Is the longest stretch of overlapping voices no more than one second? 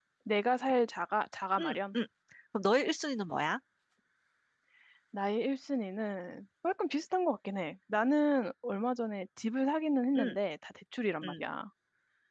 Yes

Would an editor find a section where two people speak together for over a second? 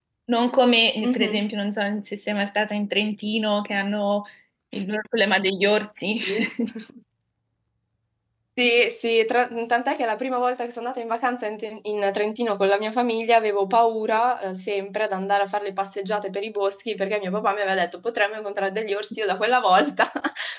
No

